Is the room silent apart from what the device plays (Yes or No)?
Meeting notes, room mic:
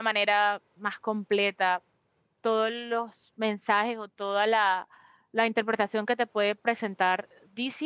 No